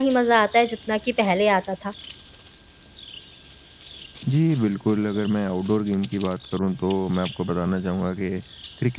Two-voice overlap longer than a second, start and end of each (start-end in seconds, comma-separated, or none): none